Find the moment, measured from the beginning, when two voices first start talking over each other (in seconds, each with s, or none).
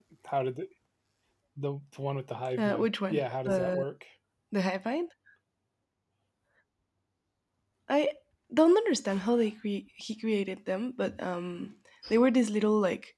2.6 s